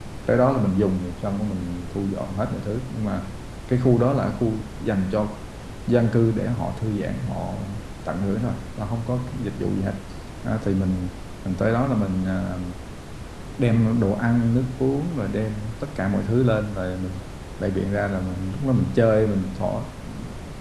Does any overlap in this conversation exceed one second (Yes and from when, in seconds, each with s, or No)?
No